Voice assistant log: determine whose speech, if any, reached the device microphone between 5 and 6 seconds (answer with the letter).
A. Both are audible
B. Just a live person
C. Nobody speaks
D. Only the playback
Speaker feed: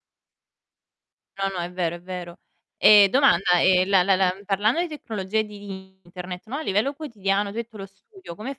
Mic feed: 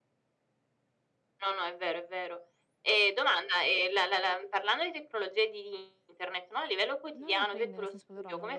D